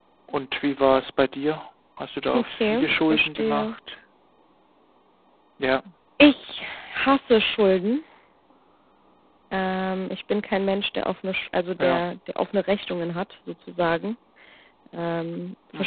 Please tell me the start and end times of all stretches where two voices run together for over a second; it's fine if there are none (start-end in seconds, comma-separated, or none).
2.4-3.7